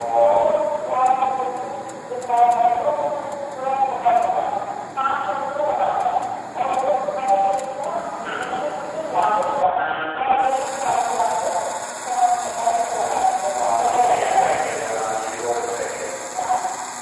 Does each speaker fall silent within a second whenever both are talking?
No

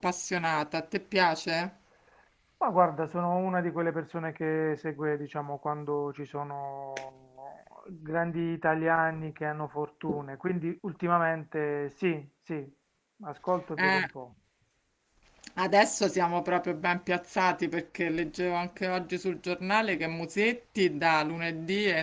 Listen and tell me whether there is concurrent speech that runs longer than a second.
No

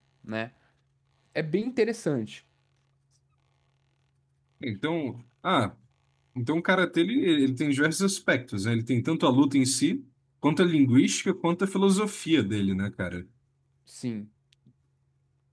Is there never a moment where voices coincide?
Yes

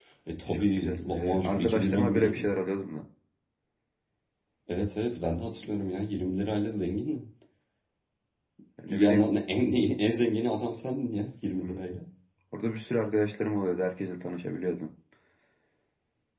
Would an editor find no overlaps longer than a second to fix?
No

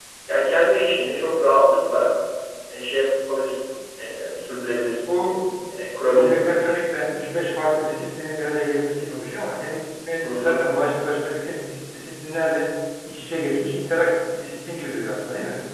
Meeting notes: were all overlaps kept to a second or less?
Yes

